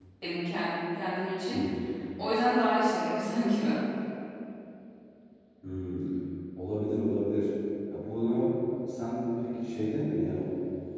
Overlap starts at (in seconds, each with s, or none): none